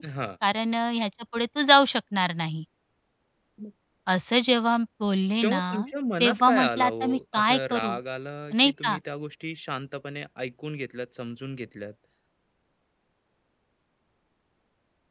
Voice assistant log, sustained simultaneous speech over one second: present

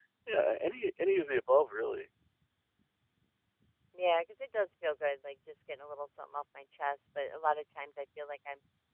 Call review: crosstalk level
none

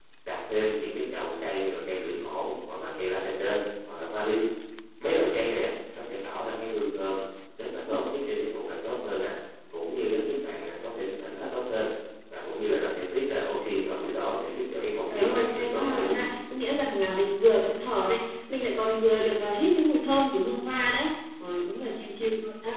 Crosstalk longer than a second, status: present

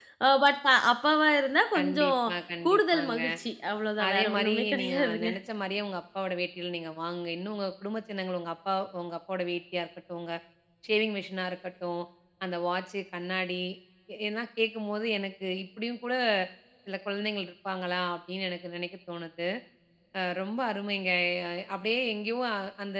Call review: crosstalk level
present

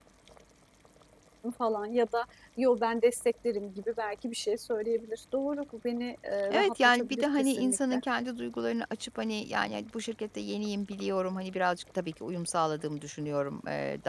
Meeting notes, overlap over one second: present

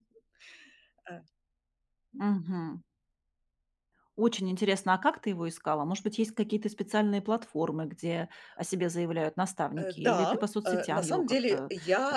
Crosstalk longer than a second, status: present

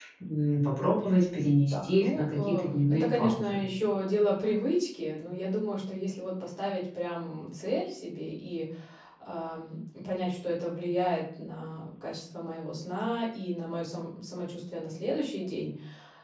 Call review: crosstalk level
present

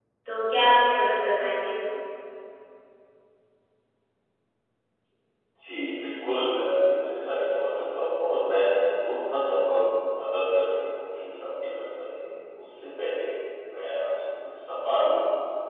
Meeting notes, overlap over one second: none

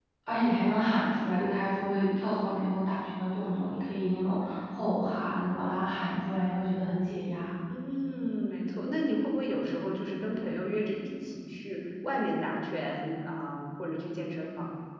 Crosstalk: none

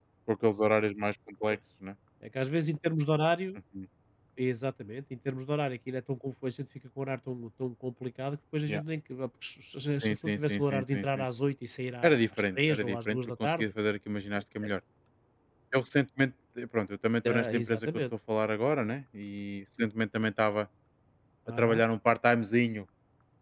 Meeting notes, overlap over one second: present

